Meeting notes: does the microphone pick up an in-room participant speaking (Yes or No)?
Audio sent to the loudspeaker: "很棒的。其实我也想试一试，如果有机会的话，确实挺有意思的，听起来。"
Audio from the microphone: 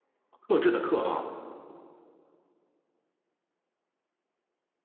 Yes